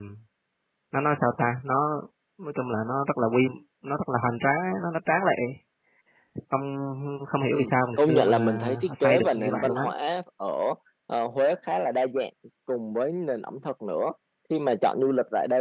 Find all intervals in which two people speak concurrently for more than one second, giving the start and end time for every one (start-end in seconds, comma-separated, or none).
7.5-9.9